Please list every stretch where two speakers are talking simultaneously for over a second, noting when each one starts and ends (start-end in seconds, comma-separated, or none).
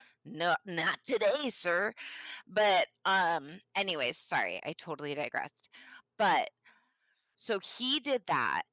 none